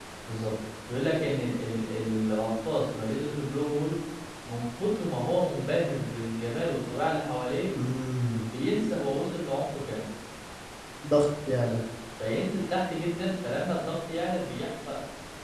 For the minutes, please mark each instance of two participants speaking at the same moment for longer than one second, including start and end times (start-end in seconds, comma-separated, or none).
none